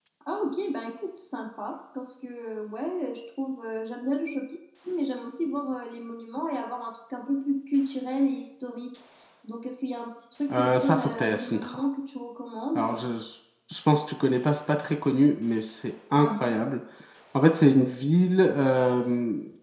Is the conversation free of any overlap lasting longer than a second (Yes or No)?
No